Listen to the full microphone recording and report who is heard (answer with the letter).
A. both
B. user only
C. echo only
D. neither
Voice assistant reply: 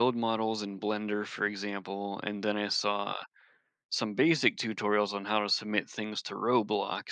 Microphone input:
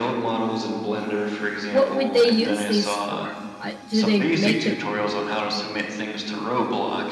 A